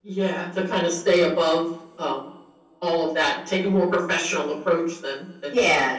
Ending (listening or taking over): taking over